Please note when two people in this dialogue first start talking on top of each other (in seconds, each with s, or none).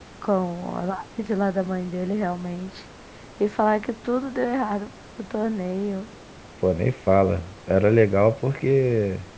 none